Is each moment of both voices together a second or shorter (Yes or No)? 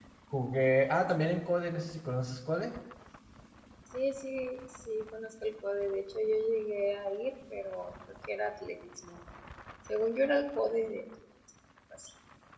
Yes